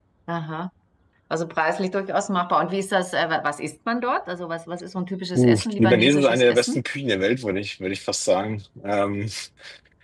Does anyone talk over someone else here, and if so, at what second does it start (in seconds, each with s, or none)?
5.4 s